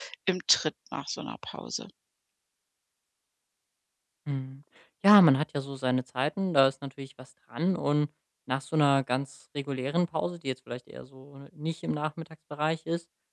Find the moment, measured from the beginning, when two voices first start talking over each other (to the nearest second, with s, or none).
none